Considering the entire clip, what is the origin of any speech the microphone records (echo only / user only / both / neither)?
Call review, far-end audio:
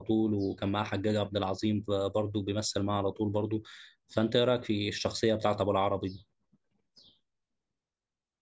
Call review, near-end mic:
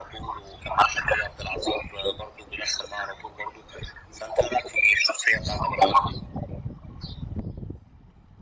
echo only